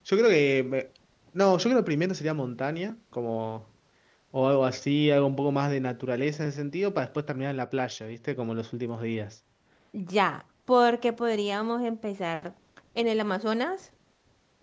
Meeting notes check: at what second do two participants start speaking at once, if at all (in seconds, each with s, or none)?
none